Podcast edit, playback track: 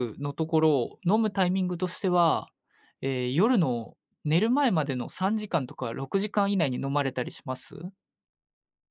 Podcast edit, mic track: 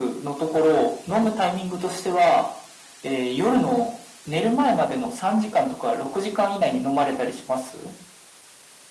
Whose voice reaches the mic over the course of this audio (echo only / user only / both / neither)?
echo only